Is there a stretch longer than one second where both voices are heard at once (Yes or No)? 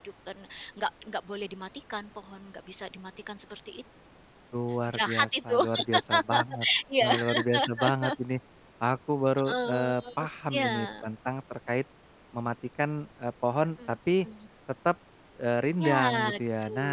Yes